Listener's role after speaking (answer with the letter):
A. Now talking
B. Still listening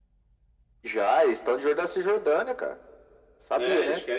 A